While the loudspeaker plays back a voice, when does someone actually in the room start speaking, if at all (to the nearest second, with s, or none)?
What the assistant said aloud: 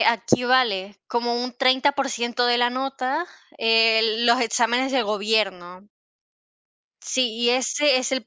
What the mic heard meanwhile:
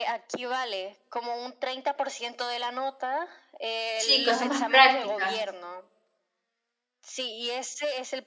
4 s